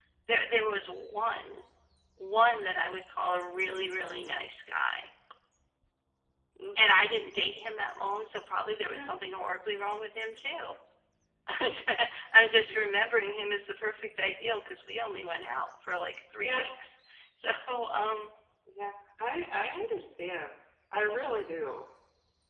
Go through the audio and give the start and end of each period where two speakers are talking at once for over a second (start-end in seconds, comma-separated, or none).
none